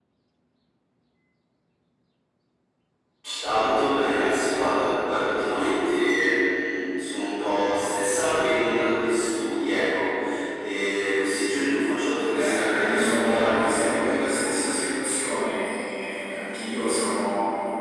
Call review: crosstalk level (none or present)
present